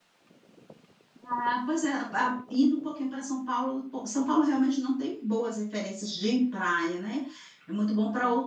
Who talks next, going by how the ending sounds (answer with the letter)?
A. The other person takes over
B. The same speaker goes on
B